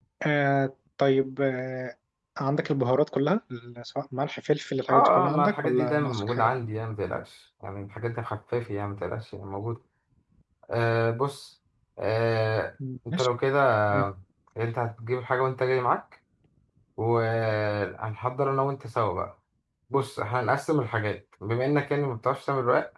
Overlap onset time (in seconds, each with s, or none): 4.9 s